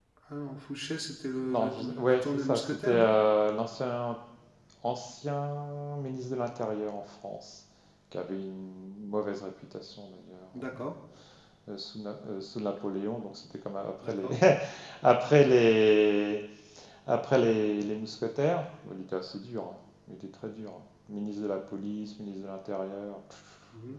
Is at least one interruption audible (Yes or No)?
Yes